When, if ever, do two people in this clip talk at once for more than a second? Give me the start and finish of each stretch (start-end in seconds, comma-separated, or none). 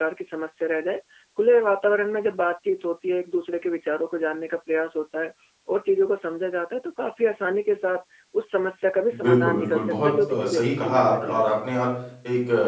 9.2-11.6